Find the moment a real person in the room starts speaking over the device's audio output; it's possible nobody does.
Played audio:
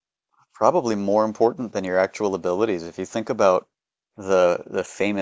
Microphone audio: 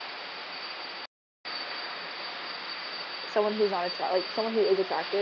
3.3 s

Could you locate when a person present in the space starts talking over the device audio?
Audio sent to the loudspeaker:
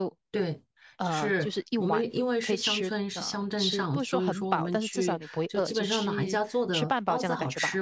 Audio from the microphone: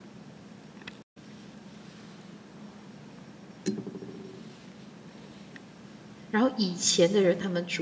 6.3 s

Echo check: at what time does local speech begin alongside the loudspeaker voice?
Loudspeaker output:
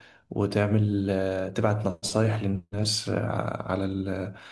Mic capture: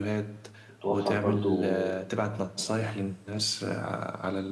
0.7 s

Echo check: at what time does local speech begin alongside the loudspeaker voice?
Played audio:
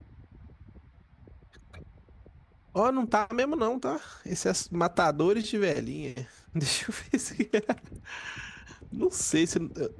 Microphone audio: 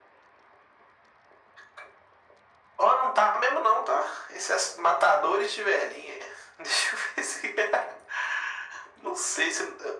none

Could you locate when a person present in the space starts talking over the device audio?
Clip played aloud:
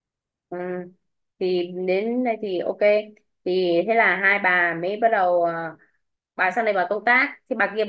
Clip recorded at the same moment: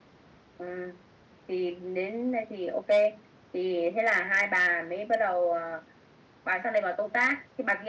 none

